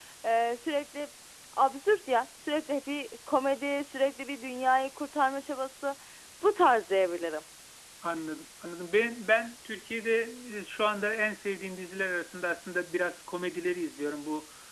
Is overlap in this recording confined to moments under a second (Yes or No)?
Yes